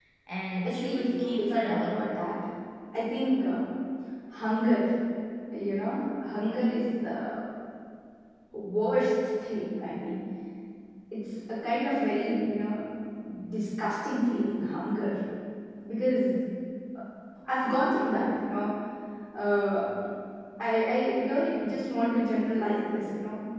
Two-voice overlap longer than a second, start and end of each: 0.6-2.1

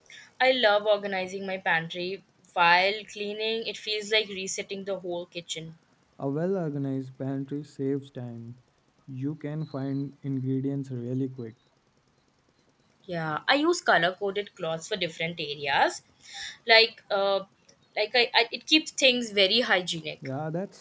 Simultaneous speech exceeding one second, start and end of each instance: none

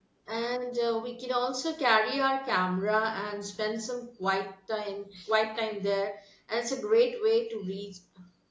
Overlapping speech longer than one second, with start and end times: none

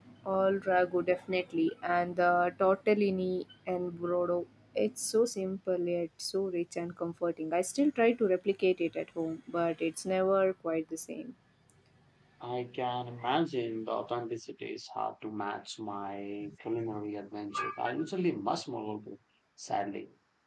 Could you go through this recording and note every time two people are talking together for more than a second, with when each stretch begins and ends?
none

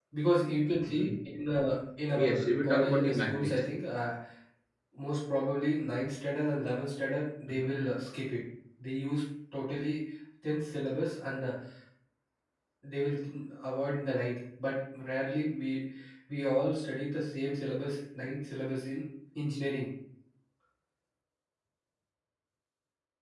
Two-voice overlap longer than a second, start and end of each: 2.1-3.5

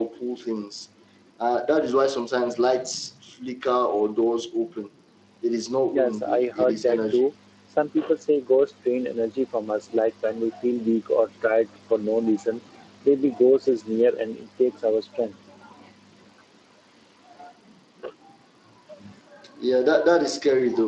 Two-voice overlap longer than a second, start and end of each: 5.9-7.3

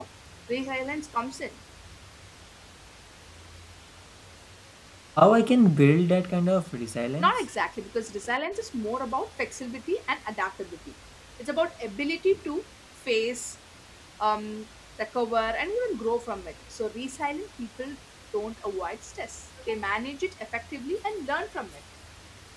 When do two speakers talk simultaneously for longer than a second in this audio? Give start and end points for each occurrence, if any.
none

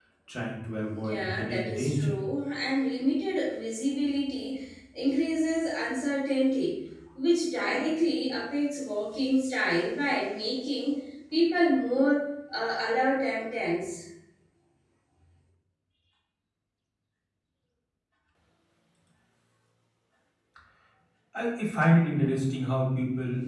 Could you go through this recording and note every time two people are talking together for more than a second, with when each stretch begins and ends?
0.9-2.1

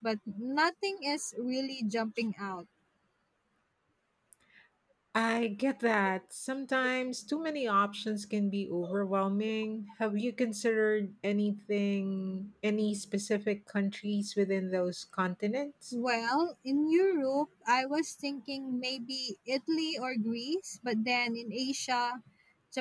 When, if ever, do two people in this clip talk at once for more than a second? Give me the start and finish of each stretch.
none

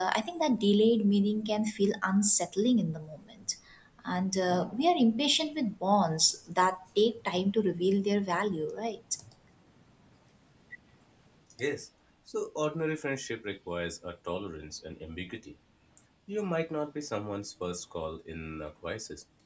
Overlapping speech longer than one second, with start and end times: none

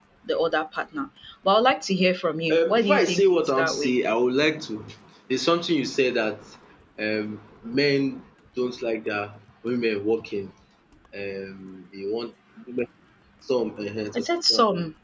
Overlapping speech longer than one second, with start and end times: 2.5-3.9

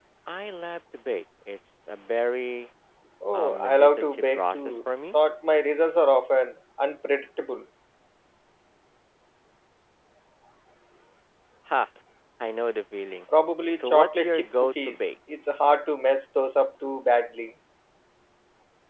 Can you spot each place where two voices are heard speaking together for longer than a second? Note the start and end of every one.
3.3-4.7, 13.8-15.1

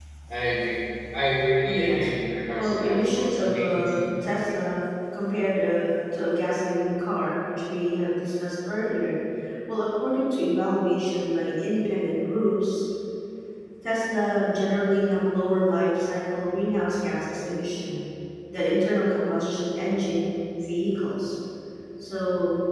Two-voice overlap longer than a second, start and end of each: 2.5-4.2

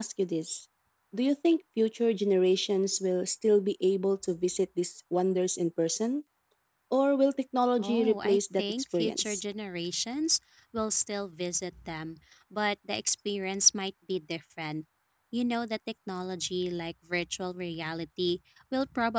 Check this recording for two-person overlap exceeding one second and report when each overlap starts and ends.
7.8-9.4

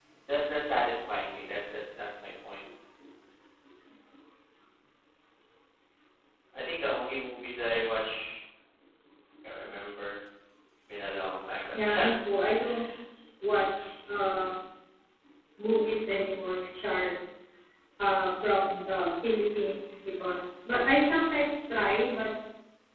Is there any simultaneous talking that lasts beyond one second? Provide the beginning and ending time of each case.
none

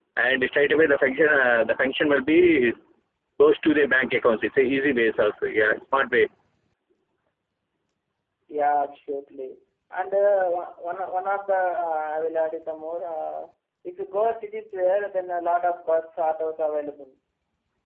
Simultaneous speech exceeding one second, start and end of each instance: none

